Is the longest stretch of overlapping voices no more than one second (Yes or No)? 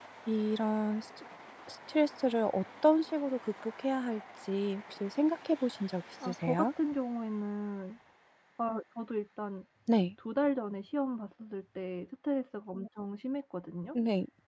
Yes